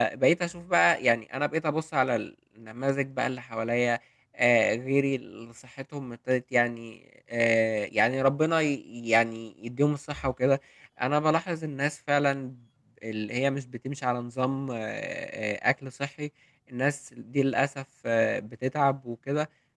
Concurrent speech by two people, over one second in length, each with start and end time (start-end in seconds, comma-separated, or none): none